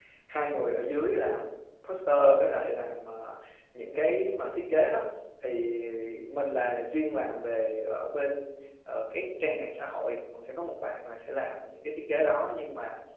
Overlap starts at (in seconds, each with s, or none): none